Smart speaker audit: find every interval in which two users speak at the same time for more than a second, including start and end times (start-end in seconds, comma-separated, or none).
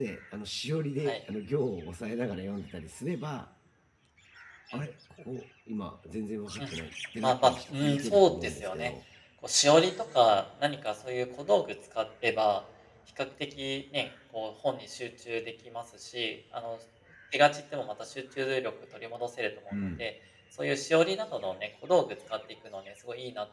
7.2-8.9